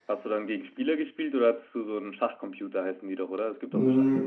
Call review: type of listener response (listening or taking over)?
taking over